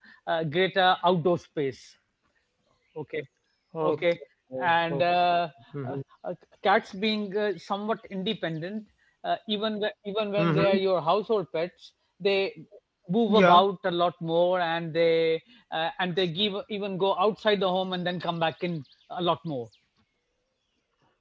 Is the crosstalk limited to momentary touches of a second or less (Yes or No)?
Yes